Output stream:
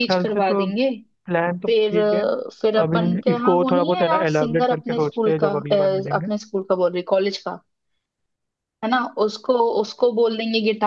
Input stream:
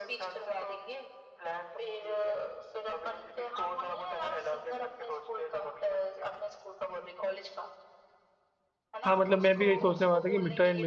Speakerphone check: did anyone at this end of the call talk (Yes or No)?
Yes